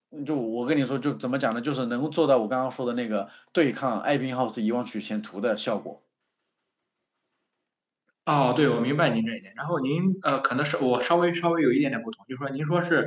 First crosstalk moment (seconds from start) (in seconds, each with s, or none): none